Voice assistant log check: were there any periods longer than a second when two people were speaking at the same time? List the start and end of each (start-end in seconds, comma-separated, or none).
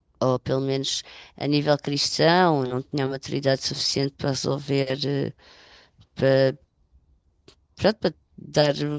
none